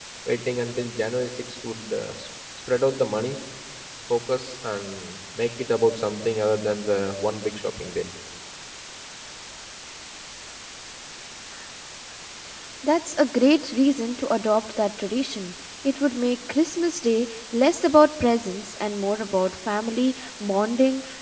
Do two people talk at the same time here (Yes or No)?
No